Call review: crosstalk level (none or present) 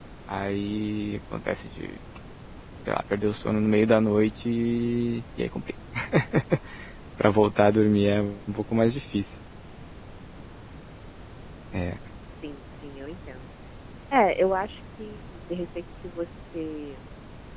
none